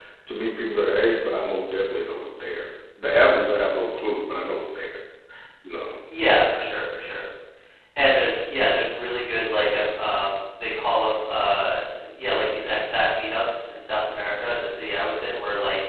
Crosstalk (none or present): none